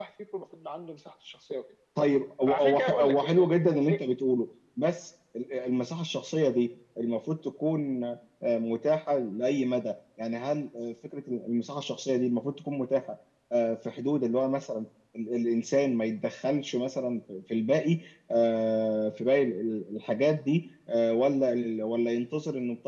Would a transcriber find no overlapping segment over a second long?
No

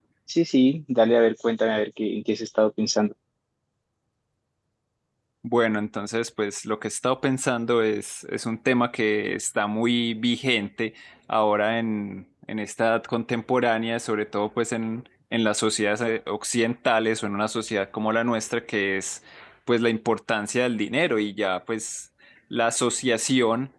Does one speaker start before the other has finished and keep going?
No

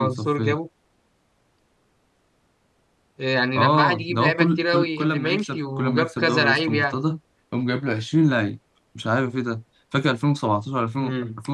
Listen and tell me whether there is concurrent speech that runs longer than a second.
Yes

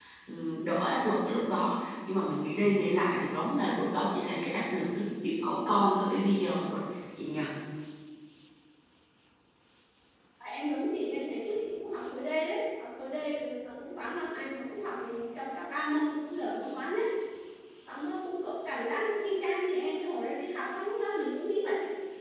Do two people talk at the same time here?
No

